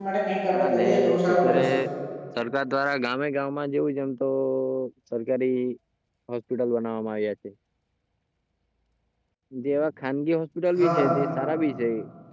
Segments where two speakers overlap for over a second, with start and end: 0.5-1.8

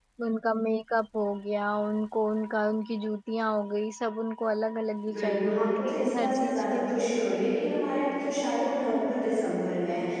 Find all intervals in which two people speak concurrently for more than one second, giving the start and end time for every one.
5.1-7.0

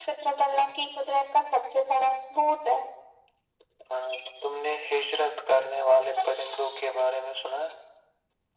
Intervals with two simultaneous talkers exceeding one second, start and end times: none

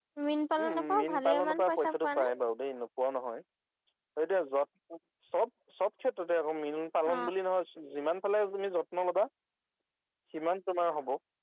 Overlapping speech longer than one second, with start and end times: 0.6-2.3

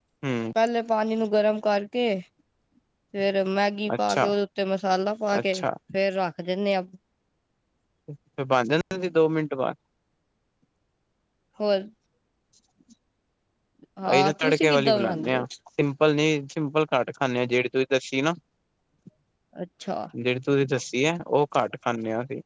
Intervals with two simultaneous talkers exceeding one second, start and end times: 14.1-15.4

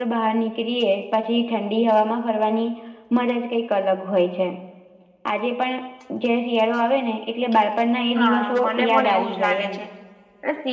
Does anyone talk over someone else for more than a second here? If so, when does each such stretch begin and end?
8.2-9.8

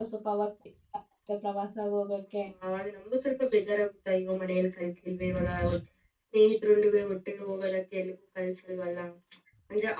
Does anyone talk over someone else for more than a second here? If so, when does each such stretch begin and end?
none

